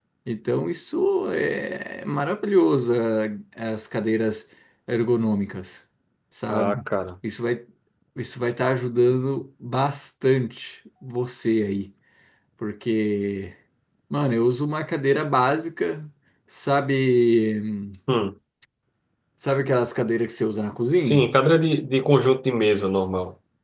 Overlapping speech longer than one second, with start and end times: none

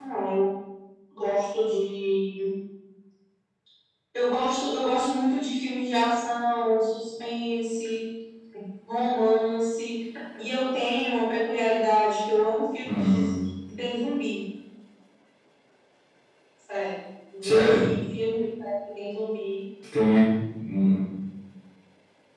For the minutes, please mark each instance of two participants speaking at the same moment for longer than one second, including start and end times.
none

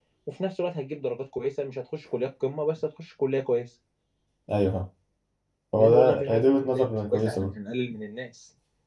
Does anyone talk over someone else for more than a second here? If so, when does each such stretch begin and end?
5.8-7.5

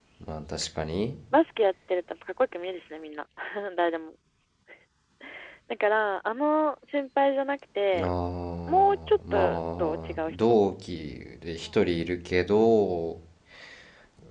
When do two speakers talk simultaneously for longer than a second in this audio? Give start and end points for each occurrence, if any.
8.7-10.3

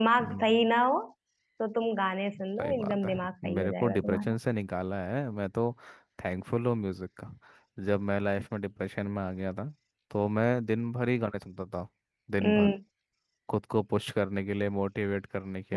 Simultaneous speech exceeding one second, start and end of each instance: 2.6-4.4

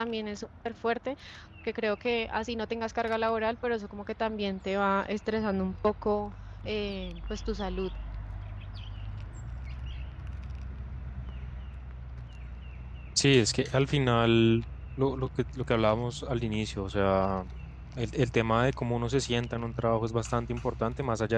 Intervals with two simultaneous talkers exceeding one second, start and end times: none

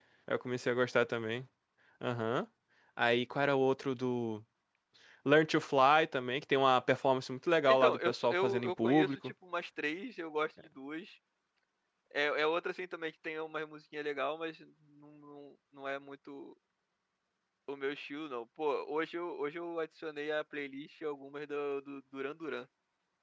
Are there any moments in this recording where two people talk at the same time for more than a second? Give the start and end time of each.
7.7-9.2

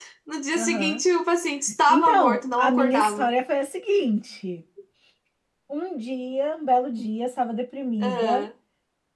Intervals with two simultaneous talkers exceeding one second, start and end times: 1.9-3.3

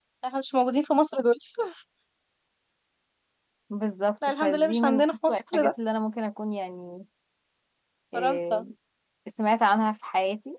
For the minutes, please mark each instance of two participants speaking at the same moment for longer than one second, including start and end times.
4.4-5.7

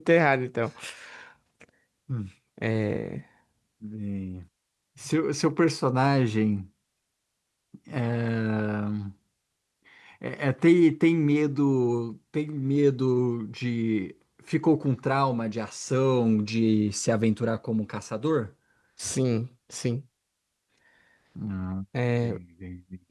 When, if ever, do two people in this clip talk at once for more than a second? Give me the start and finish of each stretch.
none

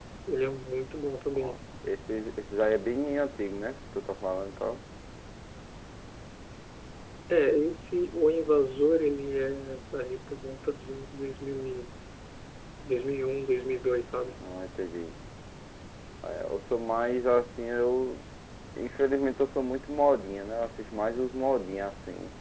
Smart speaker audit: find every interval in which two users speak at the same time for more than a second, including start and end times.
none

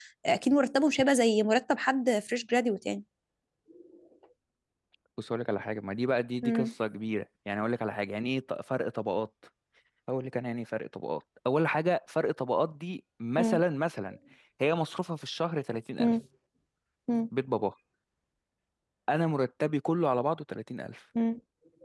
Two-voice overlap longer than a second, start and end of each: none

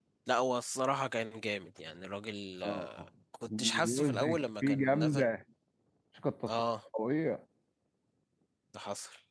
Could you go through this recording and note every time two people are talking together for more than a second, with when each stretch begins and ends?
3.6-5.3

